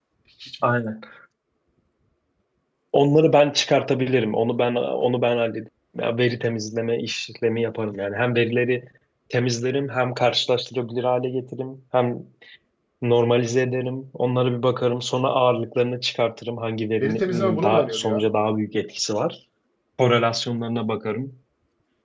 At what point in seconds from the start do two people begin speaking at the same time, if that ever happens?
17.0 s

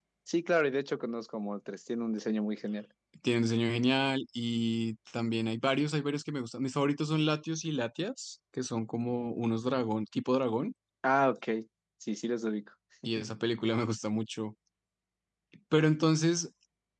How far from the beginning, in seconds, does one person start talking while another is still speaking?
none

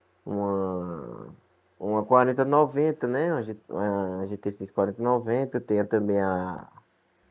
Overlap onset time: none

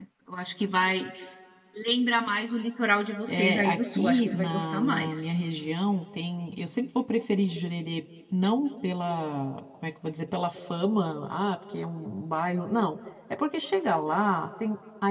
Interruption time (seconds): 3.3 s

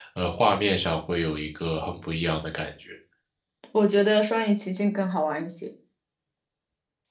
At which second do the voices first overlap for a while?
none

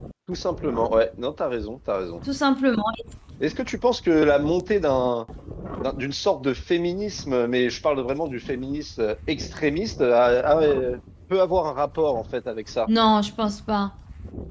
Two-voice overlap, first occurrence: none

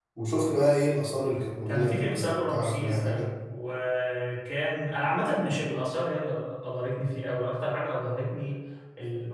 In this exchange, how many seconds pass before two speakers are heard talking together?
1.7 s

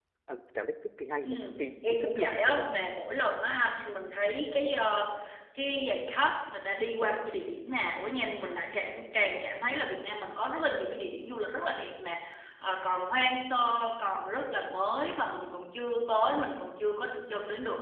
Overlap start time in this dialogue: 1.2 s

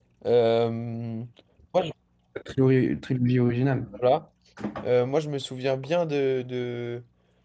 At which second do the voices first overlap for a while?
none

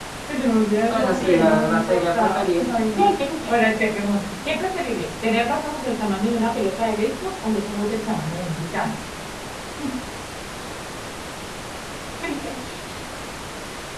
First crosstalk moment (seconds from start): 0.9 s

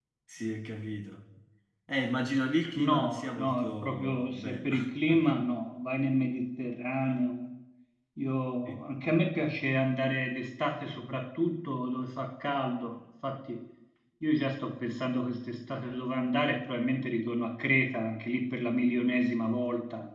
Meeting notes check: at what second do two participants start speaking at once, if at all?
2.8 s

